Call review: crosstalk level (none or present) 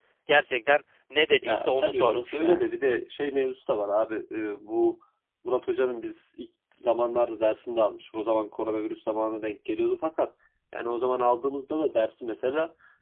present